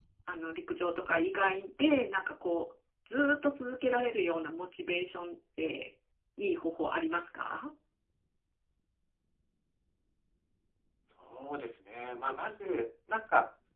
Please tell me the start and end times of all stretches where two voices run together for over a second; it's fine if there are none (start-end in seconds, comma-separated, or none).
none